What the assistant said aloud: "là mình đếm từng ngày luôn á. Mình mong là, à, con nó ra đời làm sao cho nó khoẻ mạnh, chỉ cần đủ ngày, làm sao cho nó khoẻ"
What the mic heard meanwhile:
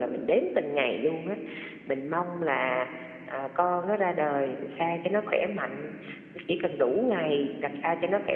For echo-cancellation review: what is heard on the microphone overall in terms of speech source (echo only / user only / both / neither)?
echo only